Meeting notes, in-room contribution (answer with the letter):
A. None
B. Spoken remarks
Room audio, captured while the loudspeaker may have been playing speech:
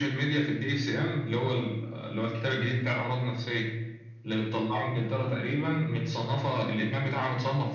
A